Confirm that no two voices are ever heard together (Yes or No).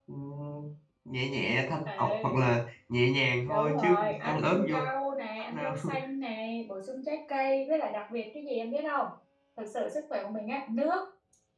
No